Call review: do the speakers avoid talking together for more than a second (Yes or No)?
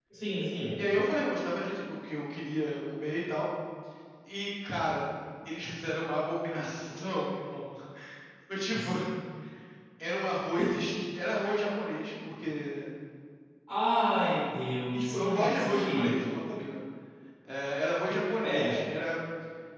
No